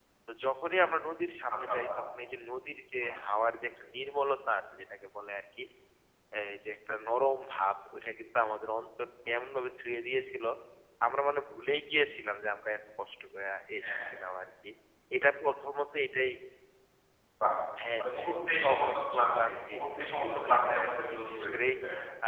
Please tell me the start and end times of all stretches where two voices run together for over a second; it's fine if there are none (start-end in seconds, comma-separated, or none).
18.0-19.8, 20.2-21.8